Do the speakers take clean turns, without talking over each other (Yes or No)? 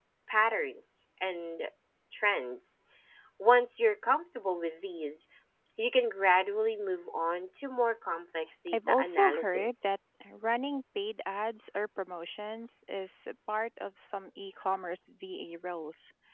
No